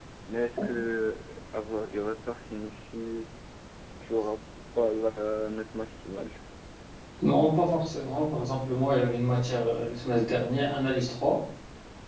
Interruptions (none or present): none